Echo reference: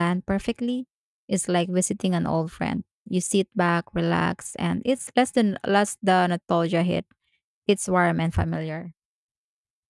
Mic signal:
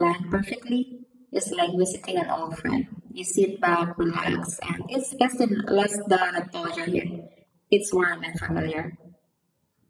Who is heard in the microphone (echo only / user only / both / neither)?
echo only